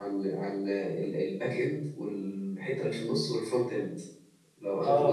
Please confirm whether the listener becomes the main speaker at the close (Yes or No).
No